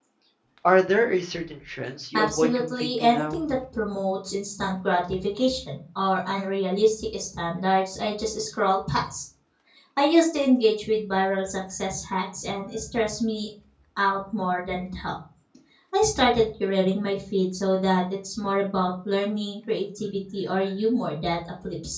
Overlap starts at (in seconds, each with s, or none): 2.1 s